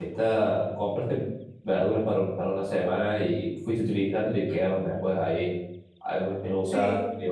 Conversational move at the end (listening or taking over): listening